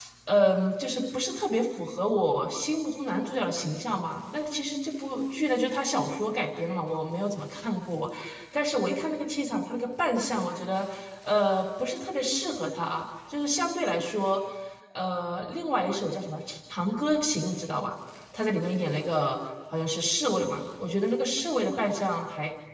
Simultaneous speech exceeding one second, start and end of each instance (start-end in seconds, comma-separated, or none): none